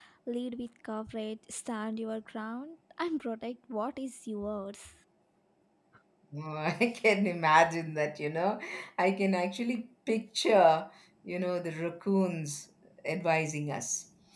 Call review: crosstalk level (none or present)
none